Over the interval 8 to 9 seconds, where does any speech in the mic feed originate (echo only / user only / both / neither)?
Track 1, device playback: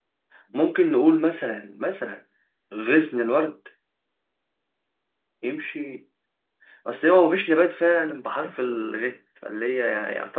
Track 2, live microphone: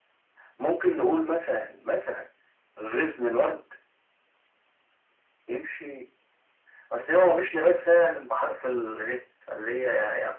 echo only